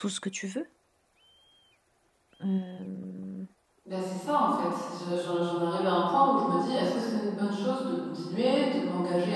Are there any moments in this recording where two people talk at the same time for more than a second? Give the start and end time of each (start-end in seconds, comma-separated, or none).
none